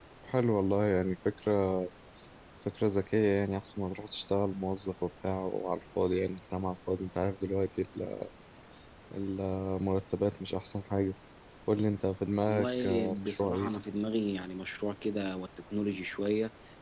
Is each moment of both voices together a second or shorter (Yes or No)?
No